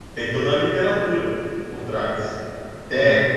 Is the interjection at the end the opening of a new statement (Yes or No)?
No